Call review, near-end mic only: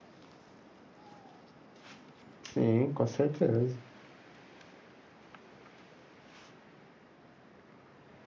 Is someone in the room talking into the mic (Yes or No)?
Yes